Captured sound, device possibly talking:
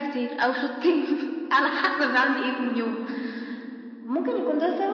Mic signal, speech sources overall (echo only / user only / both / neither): echo only